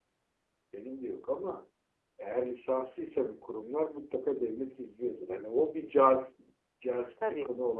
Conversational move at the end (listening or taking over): listening